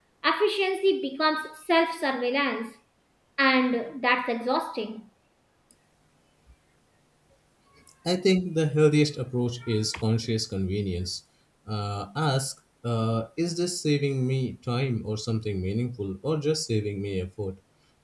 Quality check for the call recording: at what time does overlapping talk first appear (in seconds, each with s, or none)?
none